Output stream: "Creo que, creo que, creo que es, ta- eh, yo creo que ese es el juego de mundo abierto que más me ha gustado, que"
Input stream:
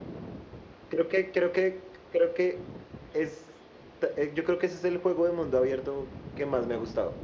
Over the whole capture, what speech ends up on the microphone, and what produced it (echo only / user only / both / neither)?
echo only